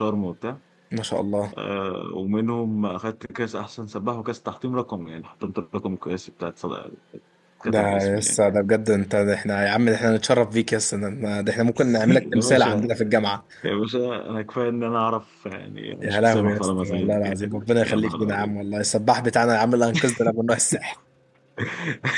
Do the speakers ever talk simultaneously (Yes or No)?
Yes